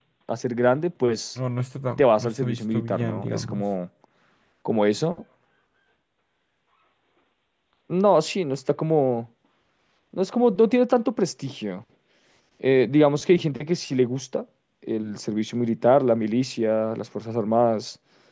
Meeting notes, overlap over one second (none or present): present